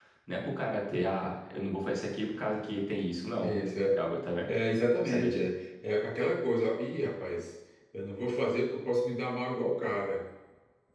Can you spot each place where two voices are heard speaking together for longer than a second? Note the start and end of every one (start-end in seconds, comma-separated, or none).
none